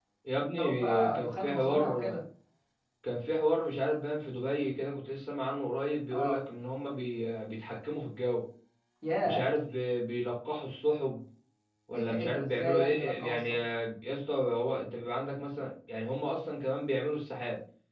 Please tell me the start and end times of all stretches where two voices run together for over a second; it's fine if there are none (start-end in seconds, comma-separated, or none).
0.6-2.2, 12.1-13.6